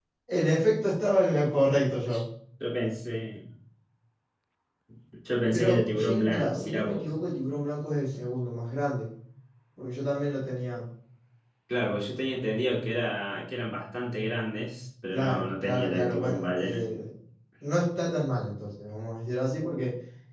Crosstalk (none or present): present